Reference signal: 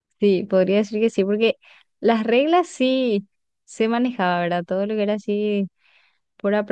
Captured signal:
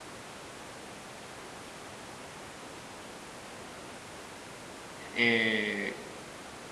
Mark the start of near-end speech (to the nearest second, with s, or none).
5 s